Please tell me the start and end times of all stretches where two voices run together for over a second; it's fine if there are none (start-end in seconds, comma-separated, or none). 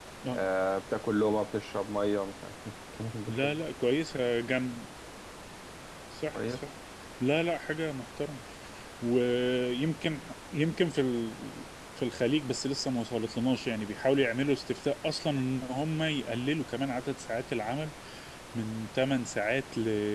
none